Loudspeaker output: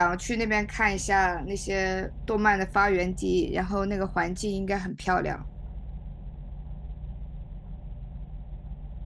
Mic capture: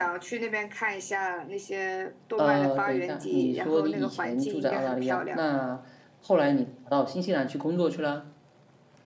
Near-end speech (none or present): present